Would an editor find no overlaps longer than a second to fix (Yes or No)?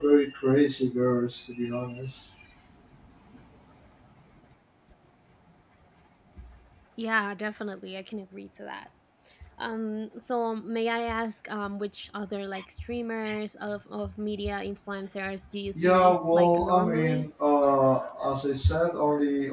No